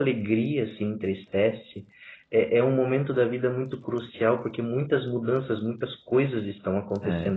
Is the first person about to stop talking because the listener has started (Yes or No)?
Yes